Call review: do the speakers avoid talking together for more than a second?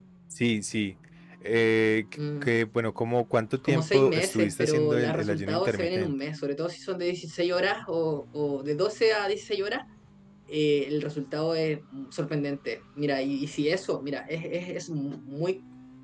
No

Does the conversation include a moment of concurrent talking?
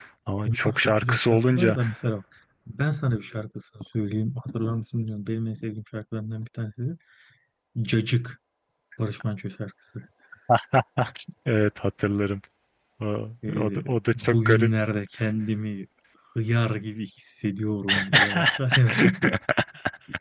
Yes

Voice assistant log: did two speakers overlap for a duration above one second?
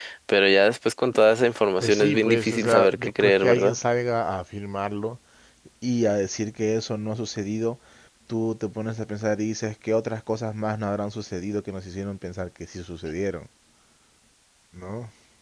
Yes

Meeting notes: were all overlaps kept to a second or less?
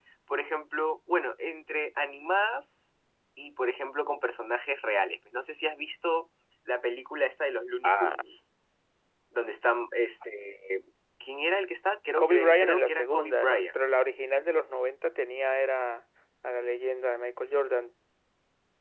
No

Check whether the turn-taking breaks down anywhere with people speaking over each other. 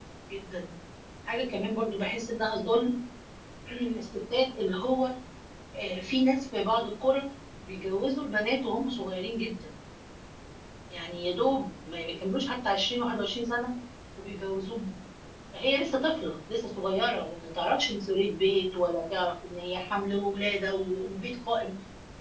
No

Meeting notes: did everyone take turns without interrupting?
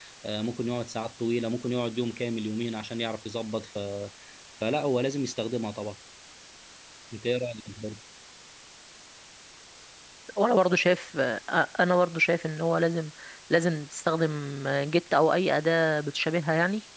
Yes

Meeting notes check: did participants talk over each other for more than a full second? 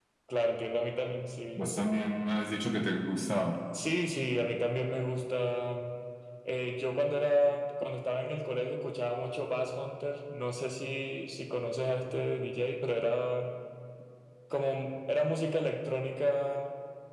No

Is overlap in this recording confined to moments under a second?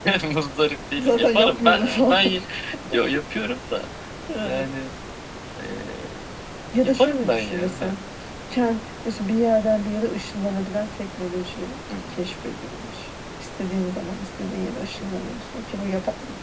No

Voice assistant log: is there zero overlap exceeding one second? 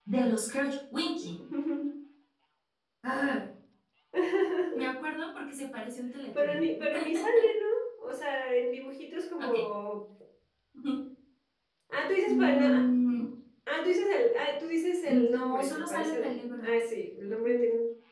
No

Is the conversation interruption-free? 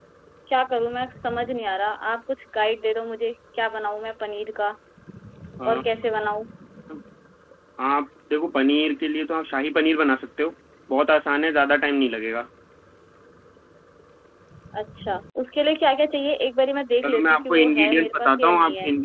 No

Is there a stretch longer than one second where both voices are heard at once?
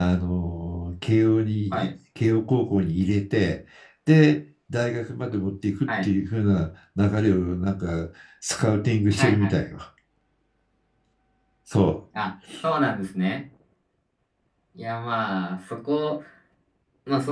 No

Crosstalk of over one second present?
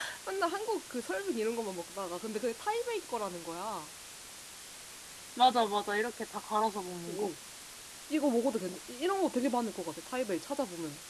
No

